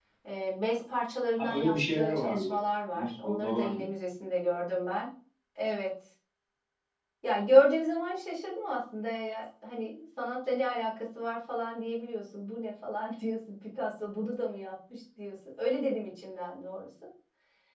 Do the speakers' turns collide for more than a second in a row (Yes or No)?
Yes